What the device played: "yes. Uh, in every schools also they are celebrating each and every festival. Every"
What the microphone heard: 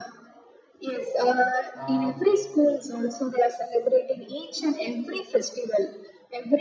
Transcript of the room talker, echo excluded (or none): uh,